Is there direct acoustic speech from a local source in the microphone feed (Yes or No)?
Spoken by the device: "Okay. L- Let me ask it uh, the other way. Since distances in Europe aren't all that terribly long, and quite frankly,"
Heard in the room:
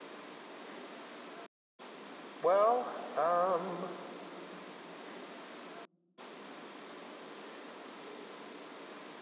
Yes